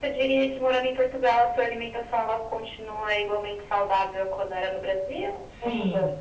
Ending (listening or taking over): taking over